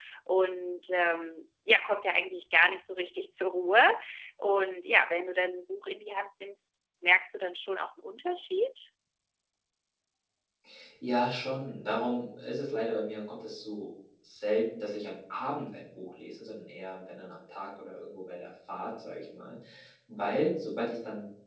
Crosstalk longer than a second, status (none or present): none